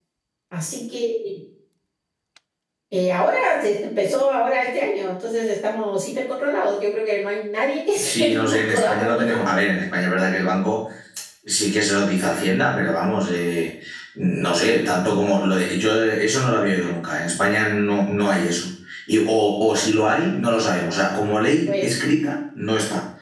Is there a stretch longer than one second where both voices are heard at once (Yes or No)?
Yes